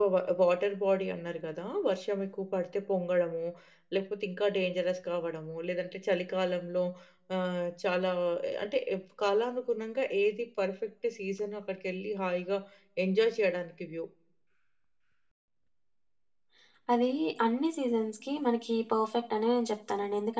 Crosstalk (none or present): none